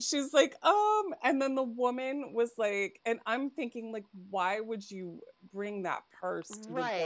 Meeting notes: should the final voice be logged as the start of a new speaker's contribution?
Yes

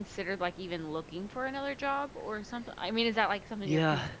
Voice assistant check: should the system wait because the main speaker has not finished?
No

